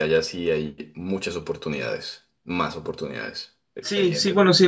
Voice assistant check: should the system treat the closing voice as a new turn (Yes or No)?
Yes